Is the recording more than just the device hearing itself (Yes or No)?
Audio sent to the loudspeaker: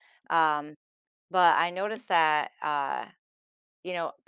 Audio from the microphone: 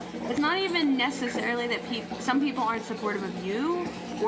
Yes